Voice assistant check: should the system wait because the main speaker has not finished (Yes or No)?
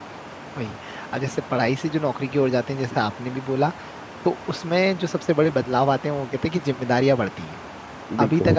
Yes